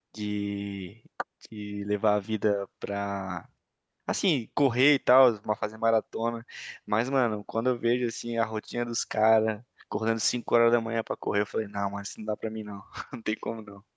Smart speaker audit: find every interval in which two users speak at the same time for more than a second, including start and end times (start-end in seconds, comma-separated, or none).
none